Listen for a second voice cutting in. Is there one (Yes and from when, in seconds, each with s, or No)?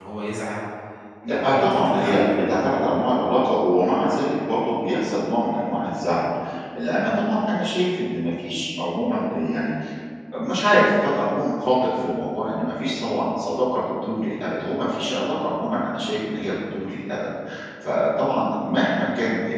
Yes, from 1.3 s